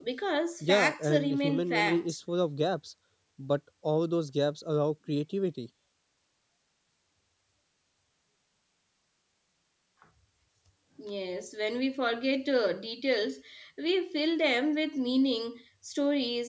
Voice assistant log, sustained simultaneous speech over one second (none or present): present